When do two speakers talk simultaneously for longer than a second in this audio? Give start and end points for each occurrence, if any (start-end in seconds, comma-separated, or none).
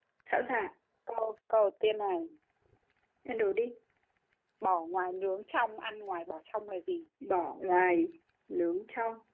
none